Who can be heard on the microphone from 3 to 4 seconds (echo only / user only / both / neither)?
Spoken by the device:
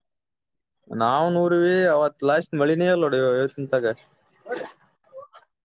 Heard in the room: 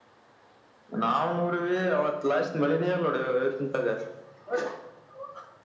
echo only